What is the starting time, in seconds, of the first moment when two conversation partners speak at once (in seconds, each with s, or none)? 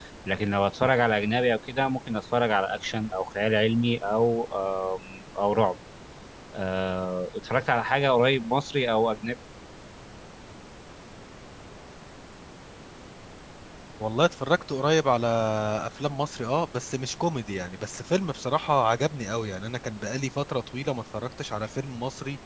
none